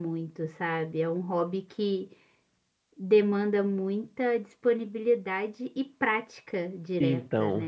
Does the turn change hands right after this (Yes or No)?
Yes